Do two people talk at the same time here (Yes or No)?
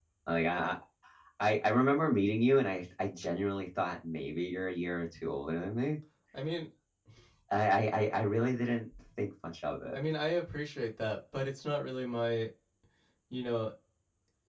No